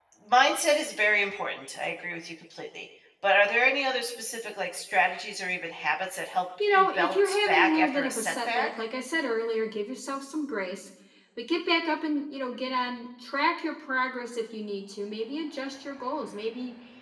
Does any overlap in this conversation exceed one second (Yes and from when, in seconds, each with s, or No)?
Yes, from 6.6 s